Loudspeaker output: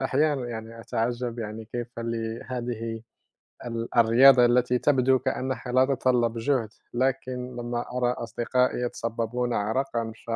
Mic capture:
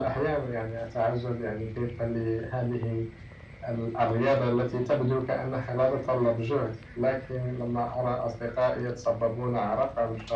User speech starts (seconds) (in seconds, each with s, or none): none